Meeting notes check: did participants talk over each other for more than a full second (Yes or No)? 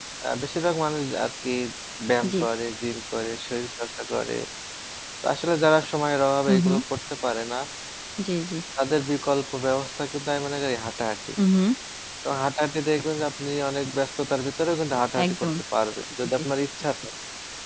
No